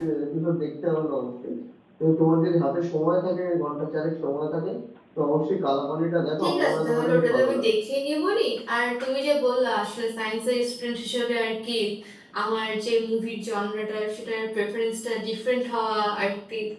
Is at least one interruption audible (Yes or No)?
Yes